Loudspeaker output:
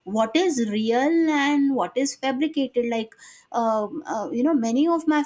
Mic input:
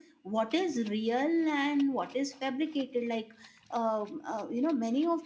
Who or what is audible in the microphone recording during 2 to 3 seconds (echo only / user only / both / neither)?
echo only